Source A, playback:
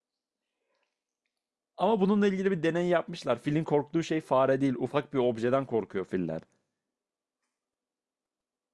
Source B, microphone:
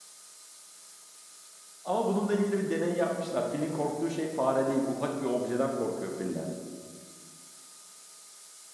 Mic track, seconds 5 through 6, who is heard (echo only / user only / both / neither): echo only